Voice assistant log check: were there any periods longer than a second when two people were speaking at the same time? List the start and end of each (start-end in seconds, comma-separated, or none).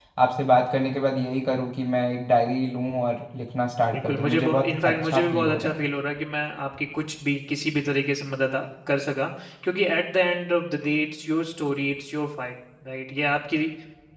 3.9-5.7